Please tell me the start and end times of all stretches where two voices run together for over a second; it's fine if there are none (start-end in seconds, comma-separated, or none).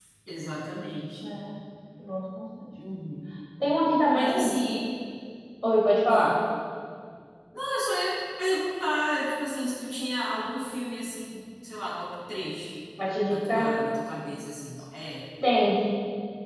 none